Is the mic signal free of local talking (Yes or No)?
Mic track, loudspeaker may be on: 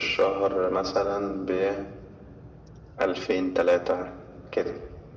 Yes